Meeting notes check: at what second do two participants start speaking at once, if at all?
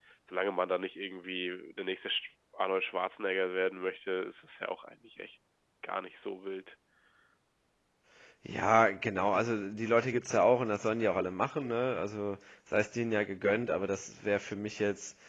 none

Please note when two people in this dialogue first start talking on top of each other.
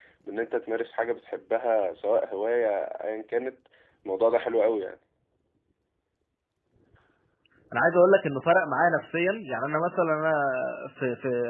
none

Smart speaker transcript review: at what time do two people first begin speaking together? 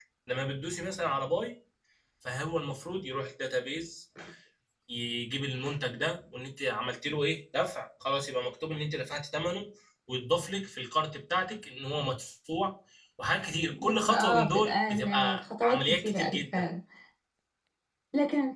13.7 s

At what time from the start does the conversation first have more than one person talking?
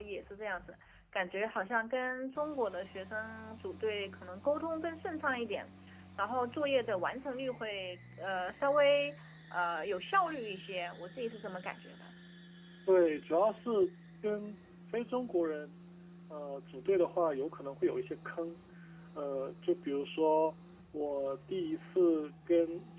none

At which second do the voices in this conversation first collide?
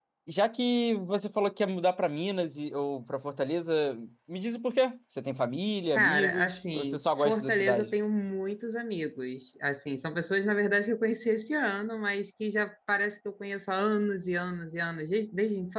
5.9 s

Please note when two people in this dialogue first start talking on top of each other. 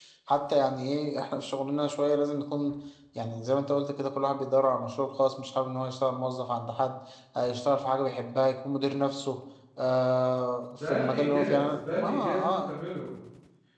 10.7 s

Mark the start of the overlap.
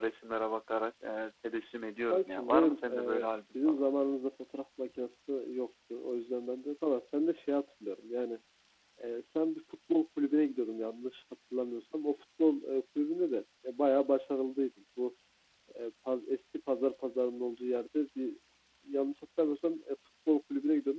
2.1 s

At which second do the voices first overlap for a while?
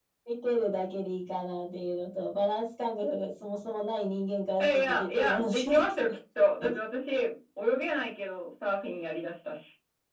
4.6 s

